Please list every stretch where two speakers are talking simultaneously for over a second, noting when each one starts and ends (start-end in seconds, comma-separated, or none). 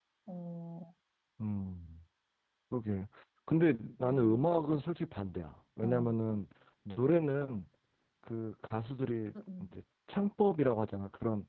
none